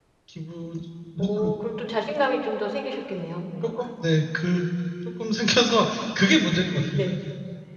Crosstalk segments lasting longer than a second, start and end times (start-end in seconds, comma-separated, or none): none